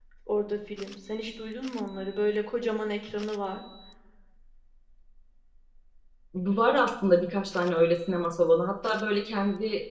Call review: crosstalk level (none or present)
none